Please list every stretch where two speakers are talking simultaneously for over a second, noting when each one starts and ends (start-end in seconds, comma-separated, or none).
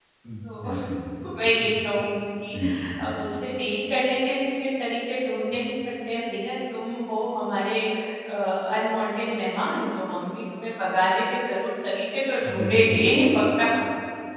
none